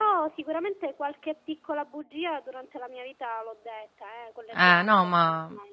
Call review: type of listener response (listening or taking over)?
taking over